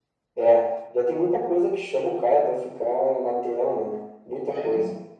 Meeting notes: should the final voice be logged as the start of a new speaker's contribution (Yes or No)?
Yes